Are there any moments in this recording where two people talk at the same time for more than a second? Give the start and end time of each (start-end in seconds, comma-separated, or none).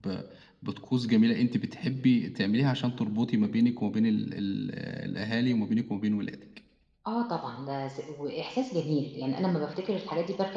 none